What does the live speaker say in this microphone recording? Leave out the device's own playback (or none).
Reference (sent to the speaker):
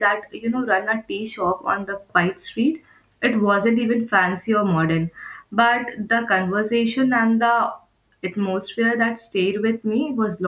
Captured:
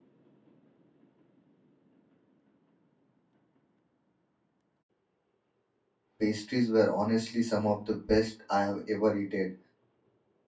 pastries were honestly some of the best I have ever eaten.